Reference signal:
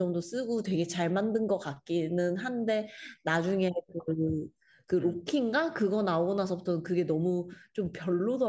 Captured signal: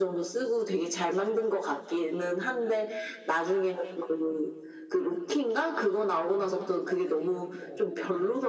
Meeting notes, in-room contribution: present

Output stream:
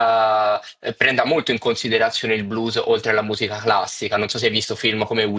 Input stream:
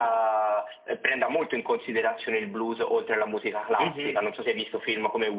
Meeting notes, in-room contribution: present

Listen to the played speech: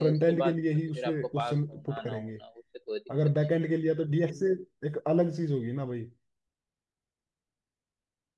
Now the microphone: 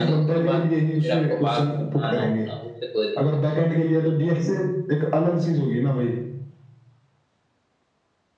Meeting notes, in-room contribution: none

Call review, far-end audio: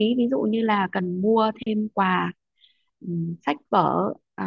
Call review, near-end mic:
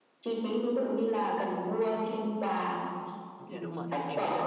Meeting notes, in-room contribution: present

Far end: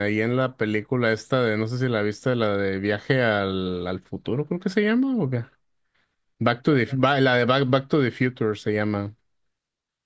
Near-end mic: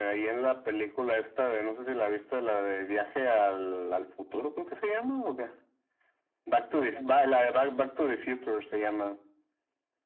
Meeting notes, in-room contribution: none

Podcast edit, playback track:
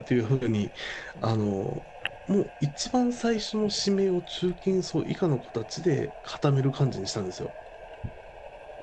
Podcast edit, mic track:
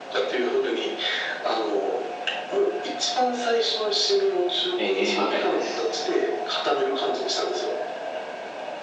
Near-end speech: present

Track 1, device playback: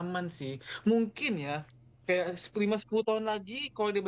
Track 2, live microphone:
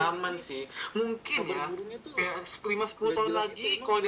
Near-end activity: present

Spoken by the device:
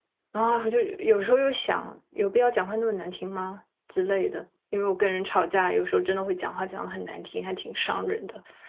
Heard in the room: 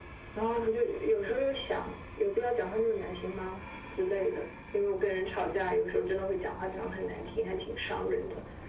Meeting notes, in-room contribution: none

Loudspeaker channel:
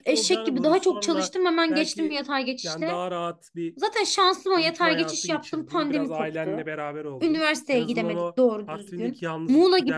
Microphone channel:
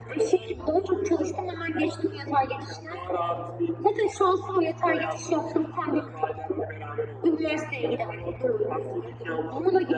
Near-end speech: none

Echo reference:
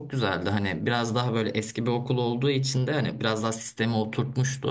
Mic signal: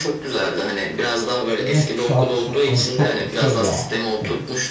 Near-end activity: present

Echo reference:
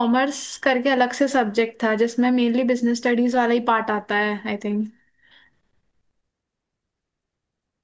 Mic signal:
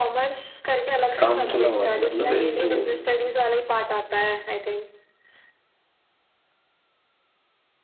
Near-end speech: present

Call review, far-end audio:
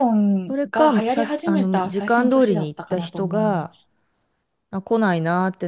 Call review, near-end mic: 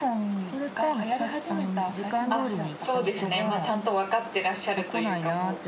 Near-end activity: present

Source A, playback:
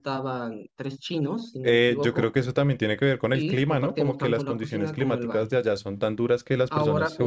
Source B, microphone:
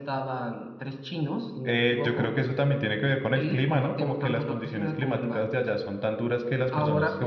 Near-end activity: none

